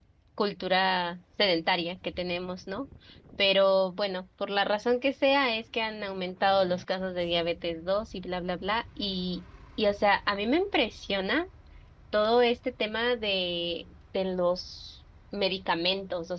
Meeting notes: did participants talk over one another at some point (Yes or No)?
No